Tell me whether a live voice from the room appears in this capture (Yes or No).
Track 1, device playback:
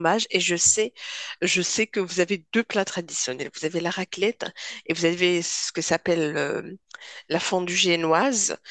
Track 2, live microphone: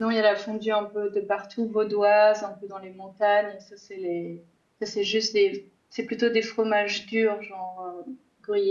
Yes